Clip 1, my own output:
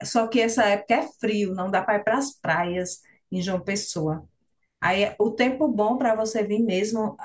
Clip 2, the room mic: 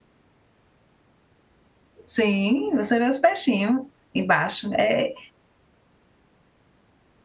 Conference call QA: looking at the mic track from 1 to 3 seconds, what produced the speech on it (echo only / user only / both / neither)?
user only